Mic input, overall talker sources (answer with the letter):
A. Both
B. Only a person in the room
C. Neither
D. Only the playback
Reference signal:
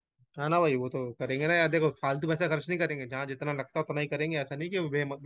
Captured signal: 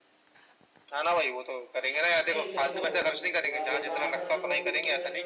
A